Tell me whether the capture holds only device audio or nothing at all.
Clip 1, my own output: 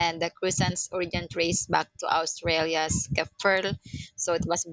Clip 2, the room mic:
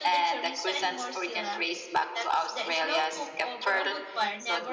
No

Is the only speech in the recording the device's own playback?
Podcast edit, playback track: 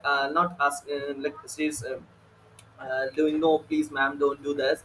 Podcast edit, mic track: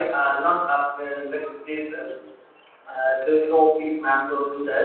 Yes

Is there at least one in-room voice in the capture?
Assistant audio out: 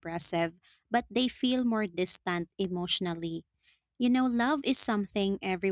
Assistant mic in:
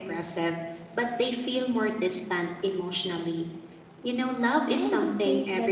Yes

